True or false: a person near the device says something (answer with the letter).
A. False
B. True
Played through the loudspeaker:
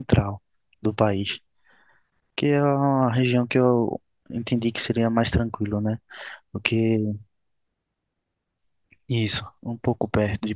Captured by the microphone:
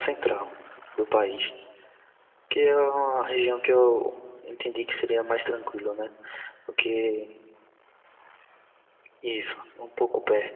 A